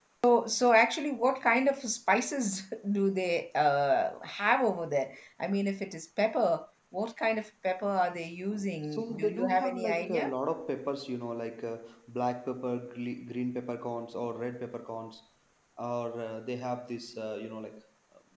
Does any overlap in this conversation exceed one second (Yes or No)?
Yes